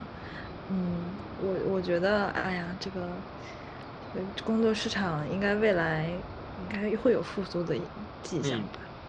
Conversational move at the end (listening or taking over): taking over